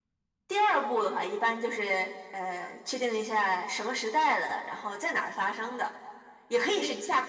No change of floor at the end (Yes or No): Yes